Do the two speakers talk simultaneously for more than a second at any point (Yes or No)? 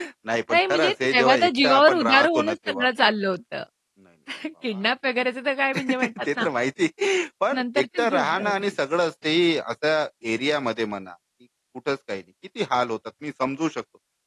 Yes